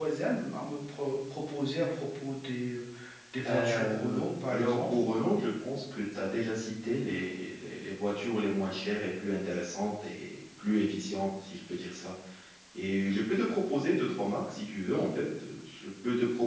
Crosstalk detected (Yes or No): Yes